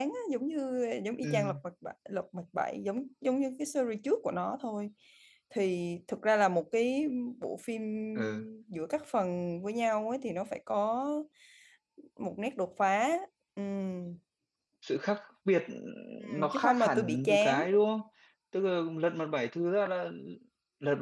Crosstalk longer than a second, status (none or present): present